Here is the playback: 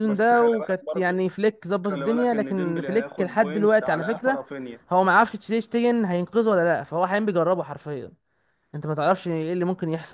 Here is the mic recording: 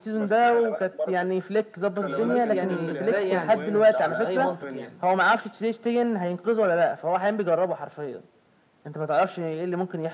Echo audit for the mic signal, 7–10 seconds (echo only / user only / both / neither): echo only